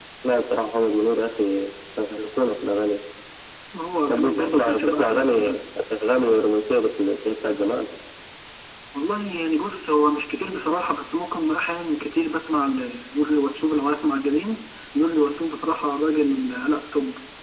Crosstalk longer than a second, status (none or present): present